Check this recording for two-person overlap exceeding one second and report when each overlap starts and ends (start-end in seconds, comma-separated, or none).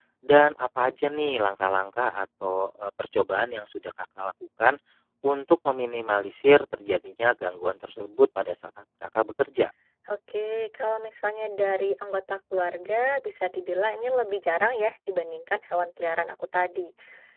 none